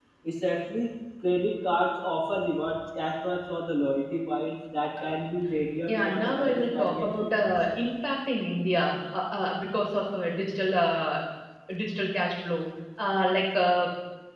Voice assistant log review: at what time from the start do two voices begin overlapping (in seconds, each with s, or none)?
5.9 s